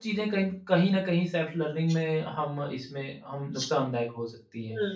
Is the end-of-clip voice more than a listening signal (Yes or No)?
Yes